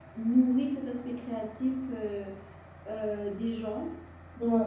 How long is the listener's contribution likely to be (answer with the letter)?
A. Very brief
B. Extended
A